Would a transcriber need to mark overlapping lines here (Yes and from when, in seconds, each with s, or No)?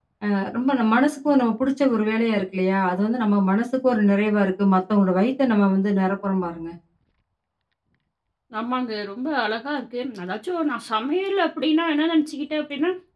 No